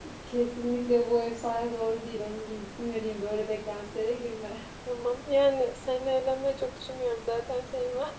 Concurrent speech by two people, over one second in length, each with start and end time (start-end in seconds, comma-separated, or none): none